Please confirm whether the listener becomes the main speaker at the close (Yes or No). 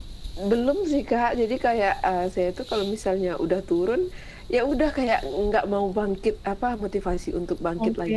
No